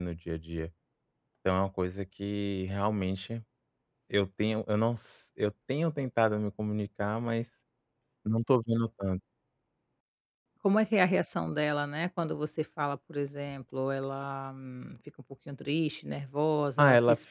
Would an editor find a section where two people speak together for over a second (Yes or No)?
No